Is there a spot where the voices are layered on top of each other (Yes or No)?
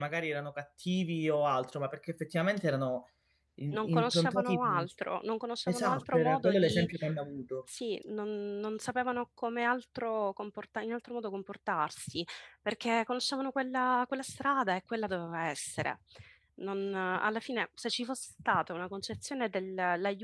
Yes